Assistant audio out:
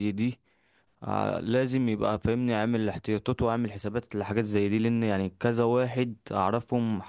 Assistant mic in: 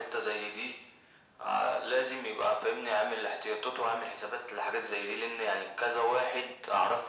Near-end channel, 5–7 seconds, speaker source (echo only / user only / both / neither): echo only